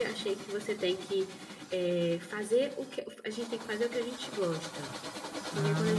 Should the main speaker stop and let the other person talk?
No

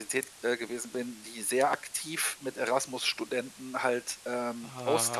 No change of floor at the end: Yes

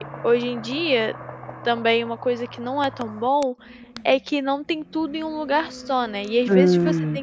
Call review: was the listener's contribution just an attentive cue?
Yes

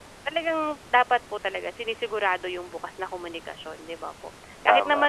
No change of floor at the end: Yes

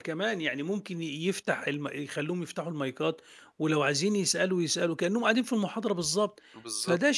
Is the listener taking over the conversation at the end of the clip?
No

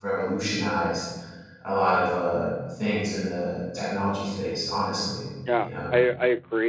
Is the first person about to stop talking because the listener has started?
Yes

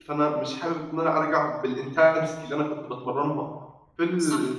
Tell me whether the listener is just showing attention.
Yes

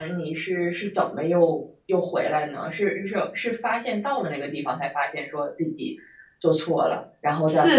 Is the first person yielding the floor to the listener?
Yes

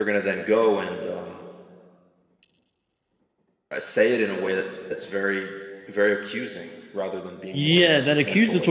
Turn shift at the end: Yes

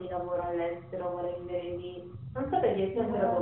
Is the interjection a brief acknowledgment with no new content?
Yes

